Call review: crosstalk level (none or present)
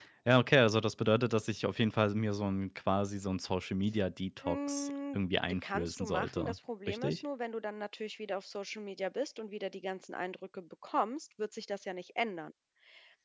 present